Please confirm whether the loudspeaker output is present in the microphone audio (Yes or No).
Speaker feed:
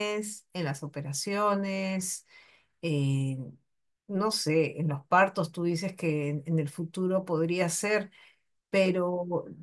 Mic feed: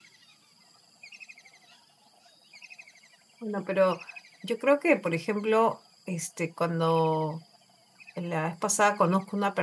No